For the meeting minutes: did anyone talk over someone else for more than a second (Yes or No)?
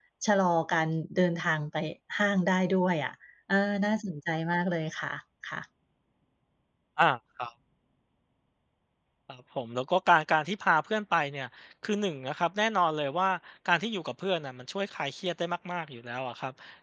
No